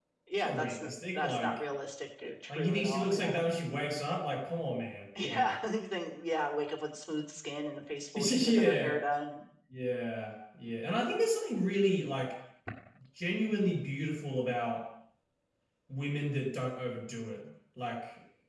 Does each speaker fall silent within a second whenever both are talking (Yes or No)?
No